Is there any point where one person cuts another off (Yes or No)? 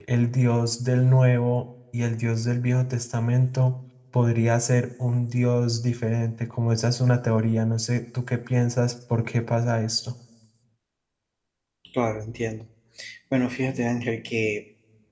No